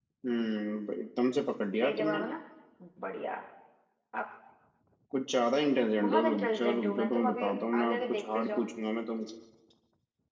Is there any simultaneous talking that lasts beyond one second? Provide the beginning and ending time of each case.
6.0-8.7

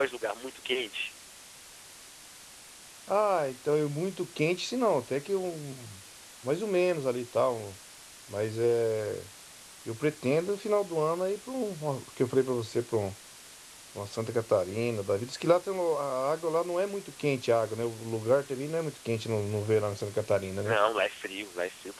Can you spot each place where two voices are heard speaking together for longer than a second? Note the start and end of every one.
none

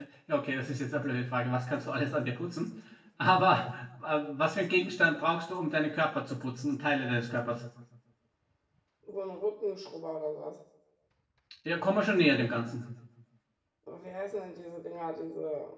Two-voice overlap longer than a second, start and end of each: none

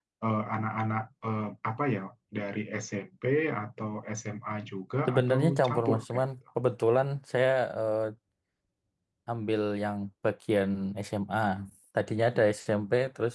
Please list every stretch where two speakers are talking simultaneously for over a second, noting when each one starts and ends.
5.1-6.3

